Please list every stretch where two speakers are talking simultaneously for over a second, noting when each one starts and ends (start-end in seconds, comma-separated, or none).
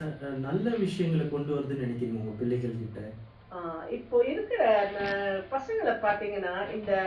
none